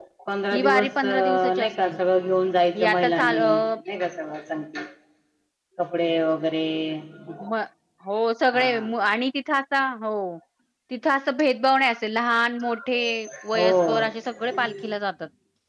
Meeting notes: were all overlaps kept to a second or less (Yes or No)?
No